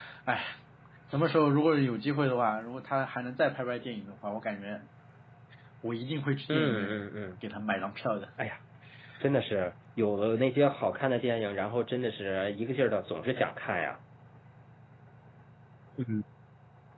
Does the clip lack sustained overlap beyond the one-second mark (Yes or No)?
Yes